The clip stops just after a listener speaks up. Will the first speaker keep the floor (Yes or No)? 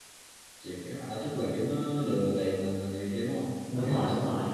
No